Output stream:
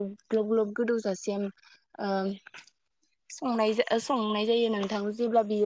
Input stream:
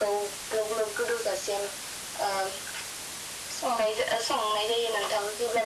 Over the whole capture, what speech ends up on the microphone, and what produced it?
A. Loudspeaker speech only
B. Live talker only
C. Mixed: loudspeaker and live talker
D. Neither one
A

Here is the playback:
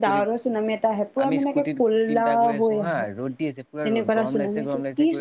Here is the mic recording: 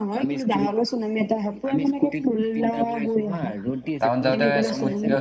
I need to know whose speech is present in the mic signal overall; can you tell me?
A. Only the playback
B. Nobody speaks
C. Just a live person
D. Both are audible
D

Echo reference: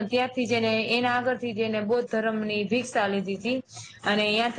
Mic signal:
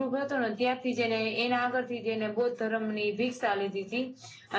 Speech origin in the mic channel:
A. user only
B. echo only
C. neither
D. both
B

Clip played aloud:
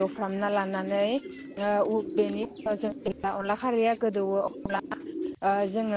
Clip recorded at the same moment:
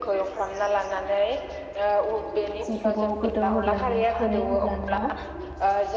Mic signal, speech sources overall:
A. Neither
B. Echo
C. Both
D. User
C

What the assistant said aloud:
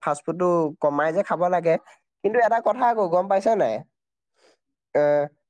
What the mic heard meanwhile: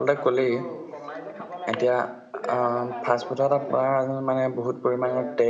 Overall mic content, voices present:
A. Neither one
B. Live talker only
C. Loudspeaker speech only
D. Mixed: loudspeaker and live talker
D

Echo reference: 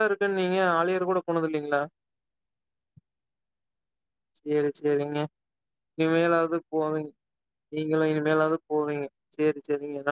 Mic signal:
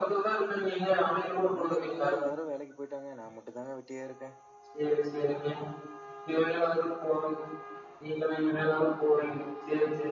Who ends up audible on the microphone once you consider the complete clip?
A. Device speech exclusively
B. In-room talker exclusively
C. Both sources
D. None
C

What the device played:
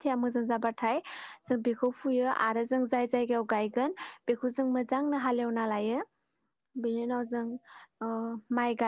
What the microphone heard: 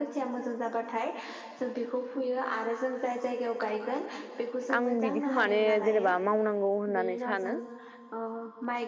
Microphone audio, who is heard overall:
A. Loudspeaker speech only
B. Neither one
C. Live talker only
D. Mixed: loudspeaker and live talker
D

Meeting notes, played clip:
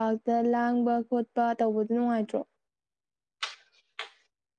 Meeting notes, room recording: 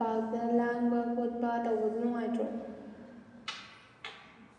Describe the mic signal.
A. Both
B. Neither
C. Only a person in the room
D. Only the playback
D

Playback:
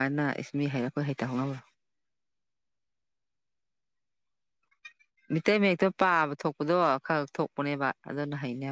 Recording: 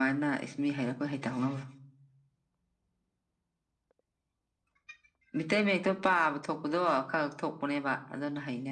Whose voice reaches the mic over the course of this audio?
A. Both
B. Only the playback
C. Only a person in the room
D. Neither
B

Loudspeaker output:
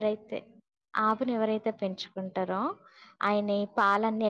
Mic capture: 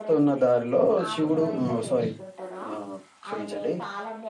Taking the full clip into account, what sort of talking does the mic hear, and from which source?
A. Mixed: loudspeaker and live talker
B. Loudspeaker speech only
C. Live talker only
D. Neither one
A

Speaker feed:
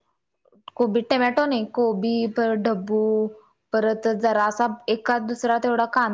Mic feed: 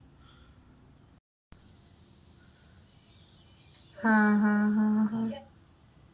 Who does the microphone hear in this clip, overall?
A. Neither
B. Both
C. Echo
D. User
D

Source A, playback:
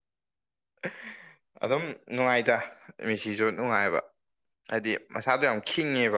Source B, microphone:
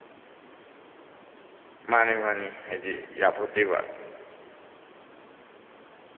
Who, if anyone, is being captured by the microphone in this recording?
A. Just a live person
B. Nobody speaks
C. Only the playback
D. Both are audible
A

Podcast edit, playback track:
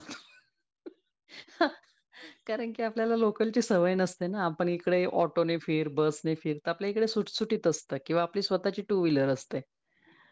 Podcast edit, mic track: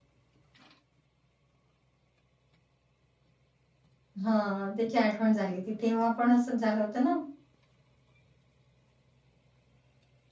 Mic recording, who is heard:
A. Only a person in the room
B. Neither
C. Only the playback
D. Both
A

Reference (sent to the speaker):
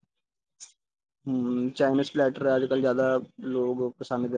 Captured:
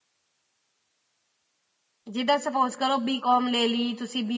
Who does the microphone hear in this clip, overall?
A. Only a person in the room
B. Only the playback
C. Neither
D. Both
A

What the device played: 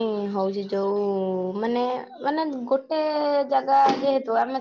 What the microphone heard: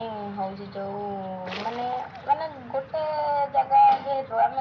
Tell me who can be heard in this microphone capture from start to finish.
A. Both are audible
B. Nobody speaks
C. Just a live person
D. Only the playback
D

